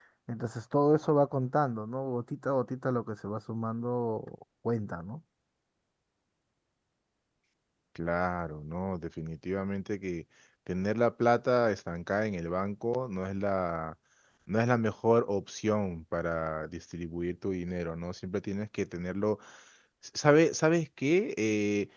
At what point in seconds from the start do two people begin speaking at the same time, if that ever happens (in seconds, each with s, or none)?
none